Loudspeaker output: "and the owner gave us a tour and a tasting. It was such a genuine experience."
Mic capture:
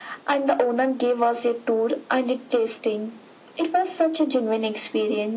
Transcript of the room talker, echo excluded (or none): none